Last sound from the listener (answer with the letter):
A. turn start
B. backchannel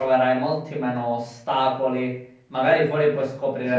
B